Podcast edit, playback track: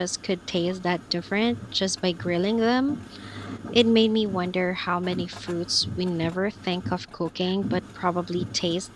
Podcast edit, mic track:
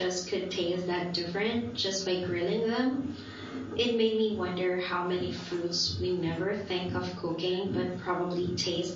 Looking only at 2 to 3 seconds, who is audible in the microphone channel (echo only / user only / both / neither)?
echo only